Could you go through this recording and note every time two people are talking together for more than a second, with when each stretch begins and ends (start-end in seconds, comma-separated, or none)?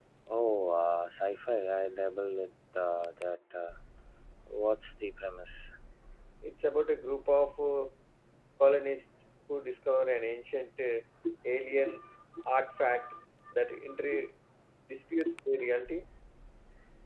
none